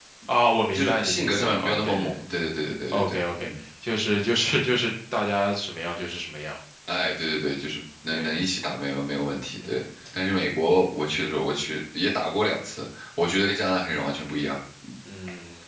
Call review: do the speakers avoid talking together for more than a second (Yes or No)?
No